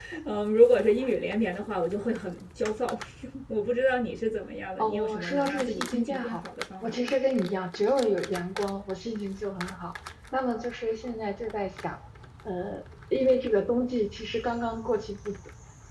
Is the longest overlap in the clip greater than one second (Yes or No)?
Yes